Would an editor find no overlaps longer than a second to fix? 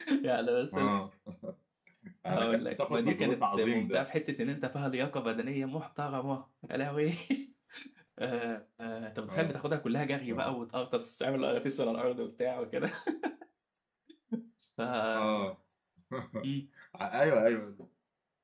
No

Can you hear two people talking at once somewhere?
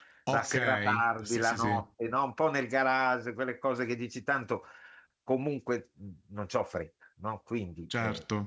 Yes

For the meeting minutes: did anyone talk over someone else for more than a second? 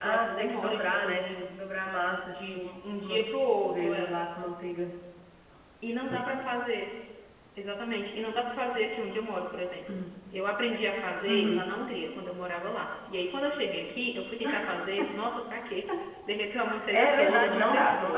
Yes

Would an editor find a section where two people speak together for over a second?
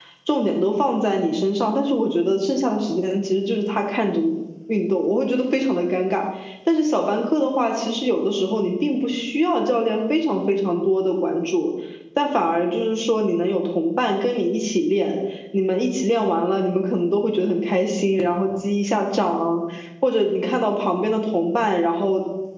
No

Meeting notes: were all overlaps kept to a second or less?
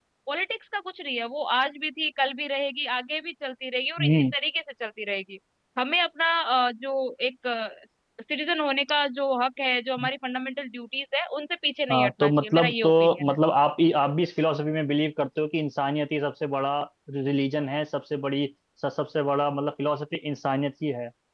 No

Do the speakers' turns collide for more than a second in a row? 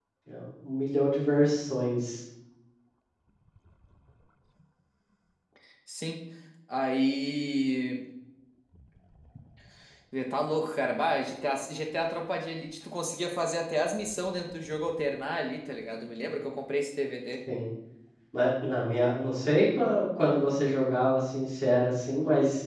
No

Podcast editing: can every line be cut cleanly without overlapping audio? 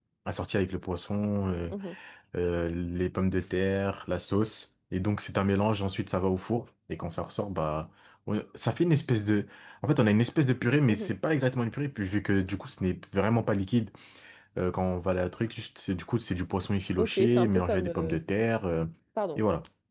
No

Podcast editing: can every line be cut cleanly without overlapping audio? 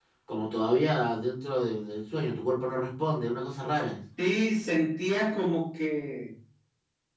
Yes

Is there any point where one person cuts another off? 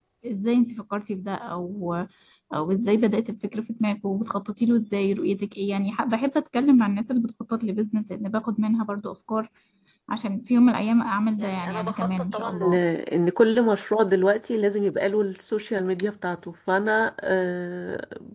Yes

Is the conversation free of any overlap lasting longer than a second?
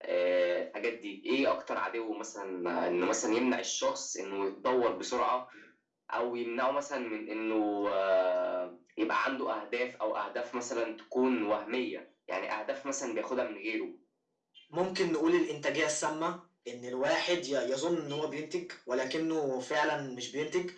Yes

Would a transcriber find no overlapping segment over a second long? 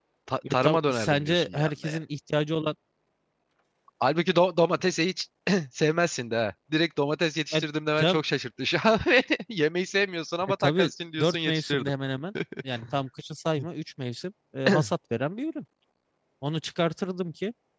No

